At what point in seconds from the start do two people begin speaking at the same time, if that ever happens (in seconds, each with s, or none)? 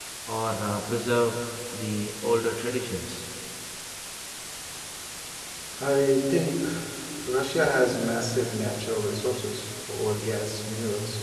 none